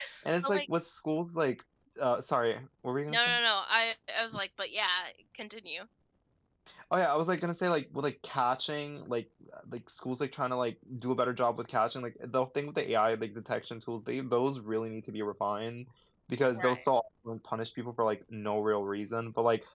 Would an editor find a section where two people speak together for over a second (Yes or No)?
No